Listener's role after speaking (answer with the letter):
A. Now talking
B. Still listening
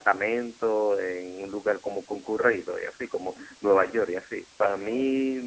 B